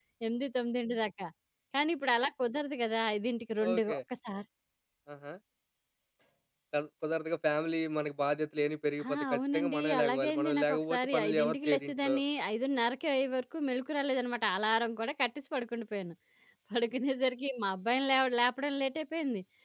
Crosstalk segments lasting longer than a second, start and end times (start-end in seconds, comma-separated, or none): 9.1-12.1